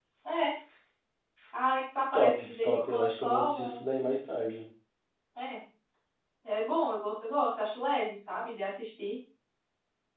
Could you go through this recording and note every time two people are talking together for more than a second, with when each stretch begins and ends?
2.1-3.8

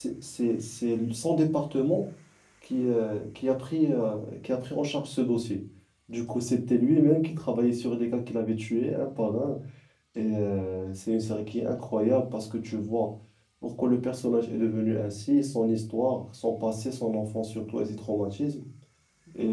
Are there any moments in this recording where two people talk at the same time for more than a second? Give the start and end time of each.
none

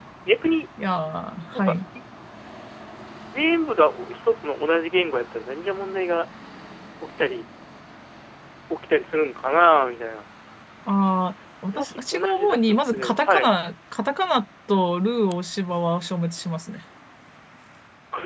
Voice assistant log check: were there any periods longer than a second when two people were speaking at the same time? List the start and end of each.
11.7-13.5

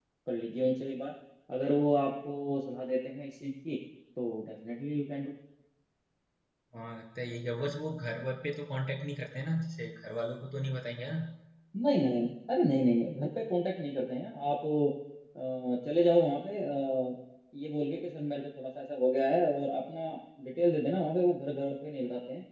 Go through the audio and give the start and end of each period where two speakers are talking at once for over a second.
none

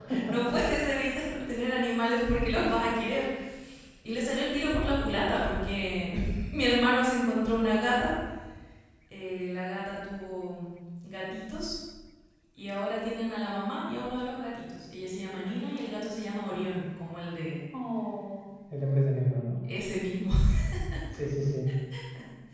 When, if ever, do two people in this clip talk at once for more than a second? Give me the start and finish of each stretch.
none

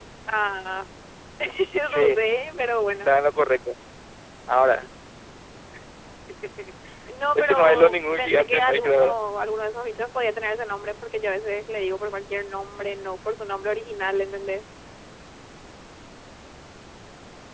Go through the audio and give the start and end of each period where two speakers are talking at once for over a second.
7.3-9.2

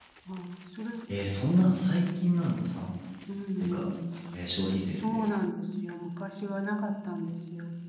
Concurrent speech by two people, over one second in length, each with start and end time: none

